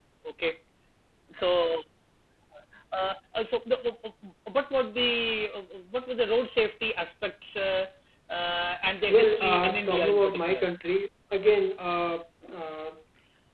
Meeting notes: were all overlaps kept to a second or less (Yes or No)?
No